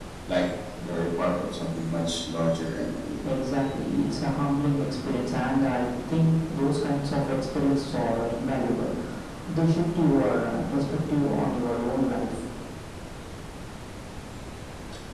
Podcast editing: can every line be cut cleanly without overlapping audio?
Yes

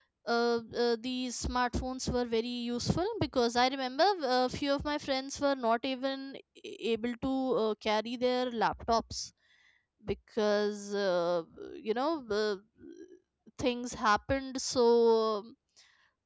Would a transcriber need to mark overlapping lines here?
No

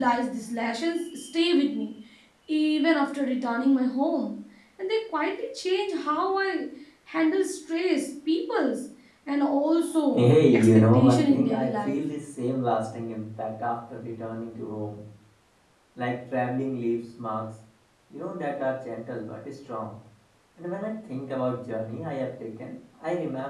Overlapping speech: Yes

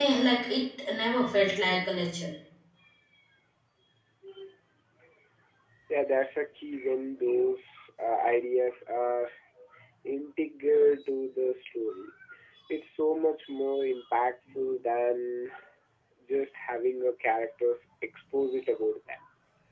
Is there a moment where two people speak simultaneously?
No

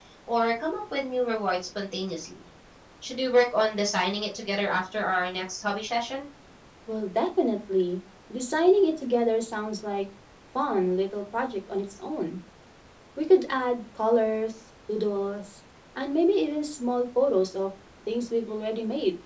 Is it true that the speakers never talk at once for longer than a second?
Yes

